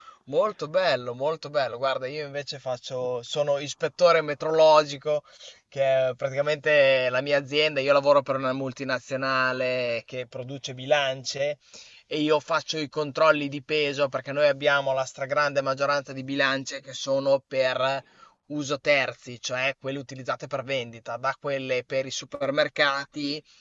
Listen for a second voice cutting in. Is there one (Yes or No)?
No